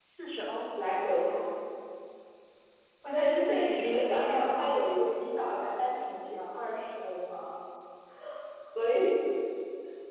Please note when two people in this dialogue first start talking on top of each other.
3.1 s

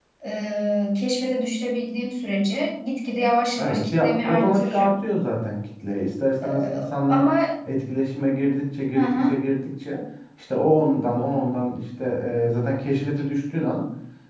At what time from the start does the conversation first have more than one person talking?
3.6 s

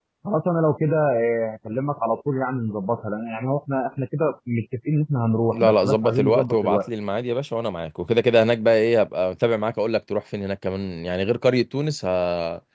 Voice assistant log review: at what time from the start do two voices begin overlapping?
5.5 s

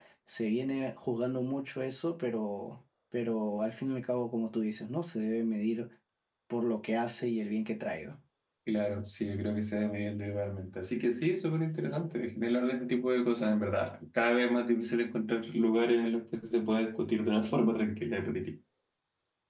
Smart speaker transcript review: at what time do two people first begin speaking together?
none

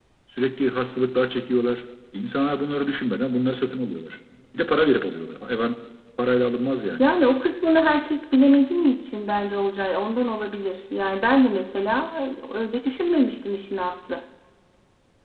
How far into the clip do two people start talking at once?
none

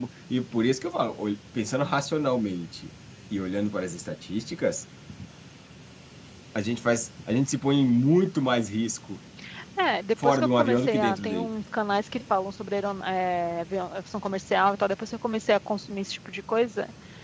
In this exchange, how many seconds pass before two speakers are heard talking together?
10.2 s

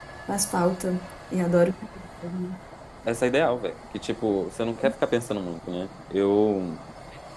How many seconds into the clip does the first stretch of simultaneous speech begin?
none

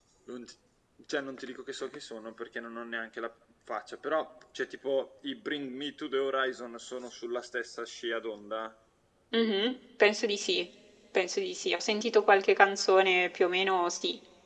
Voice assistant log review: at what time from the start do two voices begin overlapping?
none

